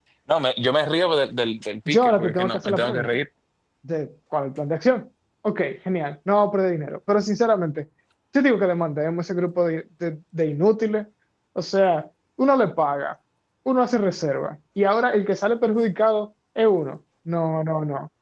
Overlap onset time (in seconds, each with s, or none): 1.9 s